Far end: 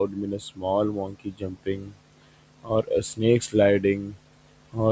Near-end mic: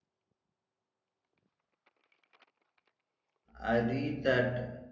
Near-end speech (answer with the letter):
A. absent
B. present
B